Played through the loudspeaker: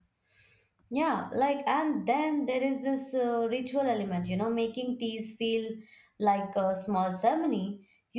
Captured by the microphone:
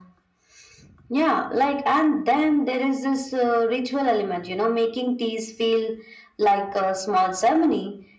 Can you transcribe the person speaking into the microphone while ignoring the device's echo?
none

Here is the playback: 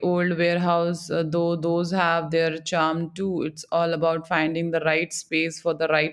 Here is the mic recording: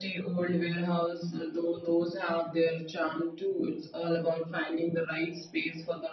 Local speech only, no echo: none

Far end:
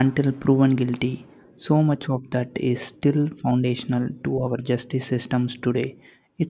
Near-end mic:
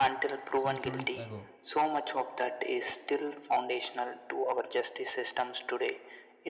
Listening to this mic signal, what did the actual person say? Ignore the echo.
centuries ago

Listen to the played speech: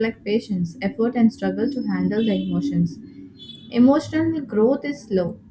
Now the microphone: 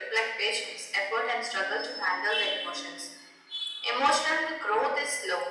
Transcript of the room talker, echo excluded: none

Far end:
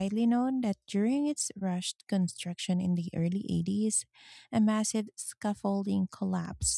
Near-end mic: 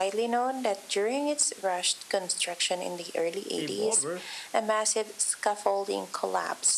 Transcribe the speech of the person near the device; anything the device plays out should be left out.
paved over

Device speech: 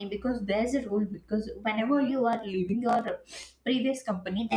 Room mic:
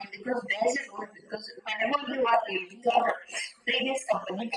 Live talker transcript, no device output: none

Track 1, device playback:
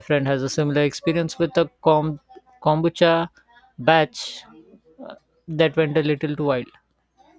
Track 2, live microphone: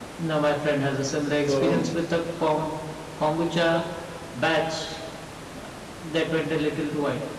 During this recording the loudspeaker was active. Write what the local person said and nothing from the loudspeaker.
So,

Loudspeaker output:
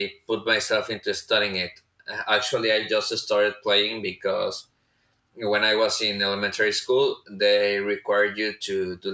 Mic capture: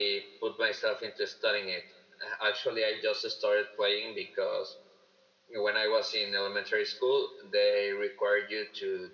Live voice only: none

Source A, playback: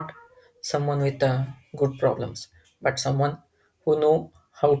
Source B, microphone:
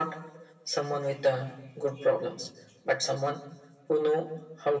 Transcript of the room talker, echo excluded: none

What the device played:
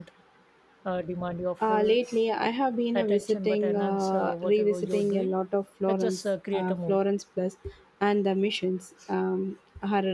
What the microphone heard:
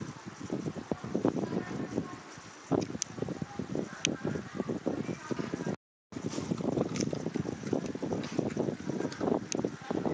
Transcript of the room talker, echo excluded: none

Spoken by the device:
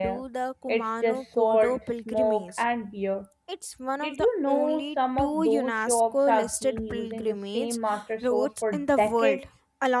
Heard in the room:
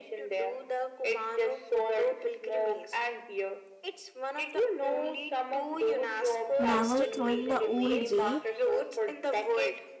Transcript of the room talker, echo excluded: Never throwing the old way,

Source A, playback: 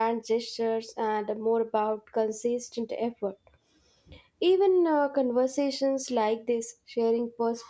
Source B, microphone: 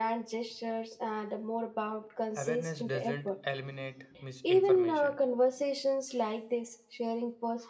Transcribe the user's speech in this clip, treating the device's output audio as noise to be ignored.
Awareness doesn't eliminate misinformation,

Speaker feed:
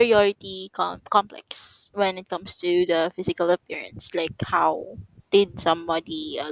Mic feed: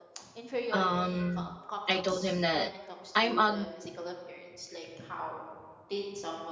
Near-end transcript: um I told him that I'm ug-

